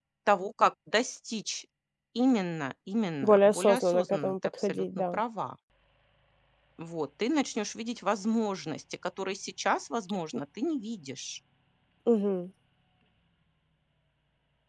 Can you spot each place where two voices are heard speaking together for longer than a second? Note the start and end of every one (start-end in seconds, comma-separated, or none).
3.2-5.2